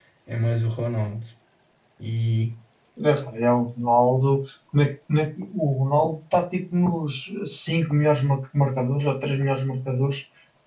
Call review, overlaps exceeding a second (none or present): none